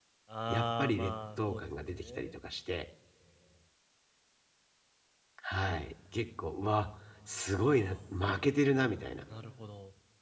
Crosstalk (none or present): present